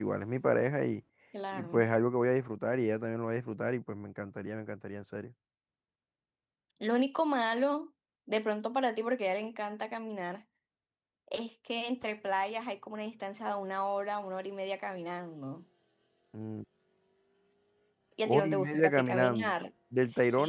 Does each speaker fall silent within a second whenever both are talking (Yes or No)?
No